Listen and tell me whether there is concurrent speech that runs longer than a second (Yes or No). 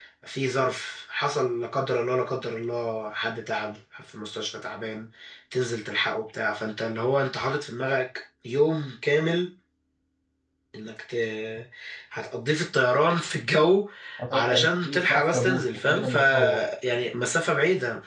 Yes